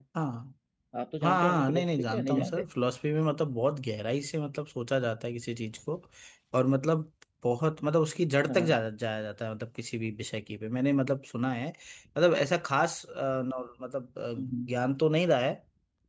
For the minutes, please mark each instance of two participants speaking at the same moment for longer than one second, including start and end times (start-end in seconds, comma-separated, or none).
1.2-2.6